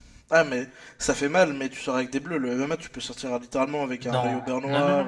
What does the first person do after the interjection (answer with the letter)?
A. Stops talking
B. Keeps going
A